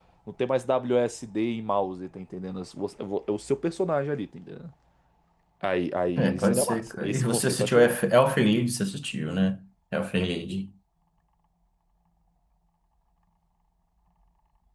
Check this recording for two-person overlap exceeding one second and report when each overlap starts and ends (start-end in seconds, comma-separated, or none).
6.2-8.0